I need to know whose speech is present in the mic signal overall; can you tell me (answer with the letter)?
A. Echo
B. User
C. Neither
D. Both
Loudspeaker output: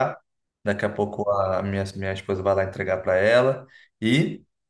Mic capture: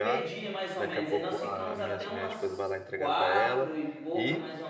D